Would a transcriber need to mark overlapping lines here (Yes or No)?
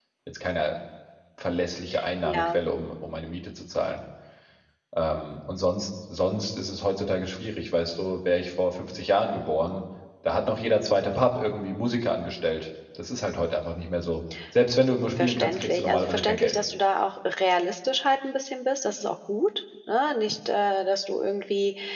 Yes